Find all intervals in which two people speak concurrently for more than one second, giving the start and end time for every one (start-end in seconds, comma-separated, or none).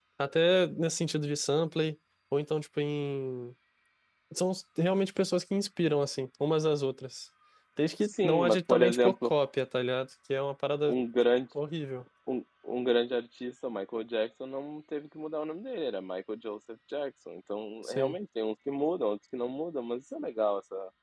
8.0-9.3